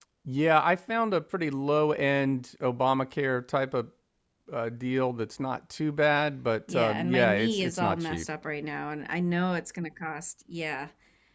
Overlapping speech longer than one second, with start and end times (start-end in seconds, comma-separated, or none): 6.7-8.2